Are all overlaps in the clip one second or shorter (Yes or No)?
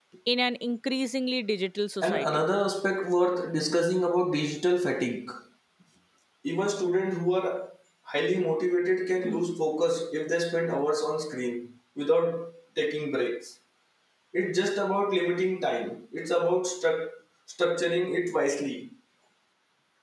Yes